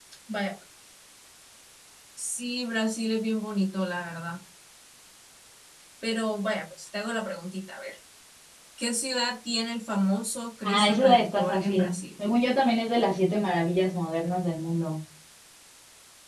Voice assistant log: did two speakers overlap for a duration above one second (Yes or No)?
Yes